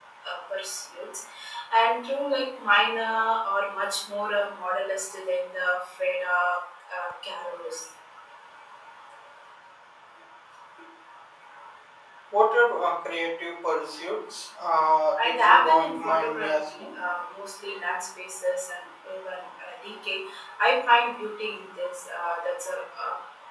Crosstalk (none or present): present